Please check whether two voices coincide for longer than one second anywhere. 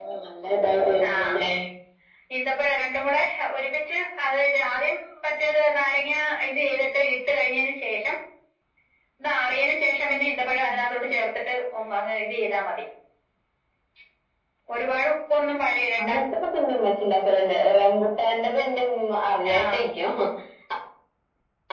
No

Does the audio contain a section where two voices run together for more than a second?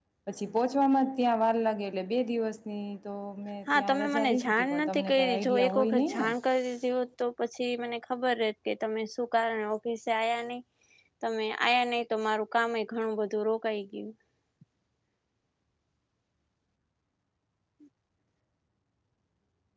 Yes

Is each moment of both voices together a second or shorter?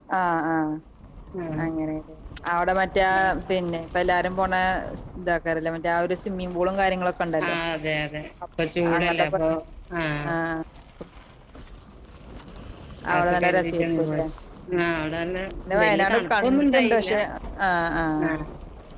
No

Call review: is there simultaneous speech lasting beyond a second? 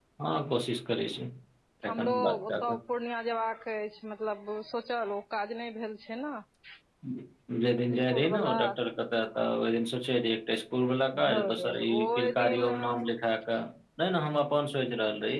Yes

